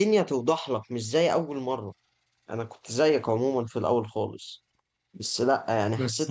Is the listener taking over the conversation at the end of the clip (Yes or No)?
No